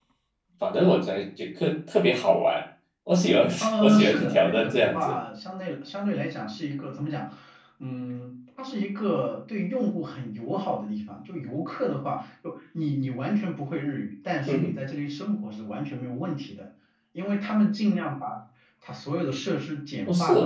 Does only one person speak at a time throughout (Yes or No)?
No